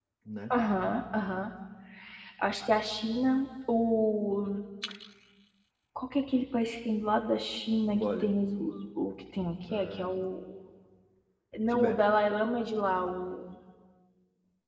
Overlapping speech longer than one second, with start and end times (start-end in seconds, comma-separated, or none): none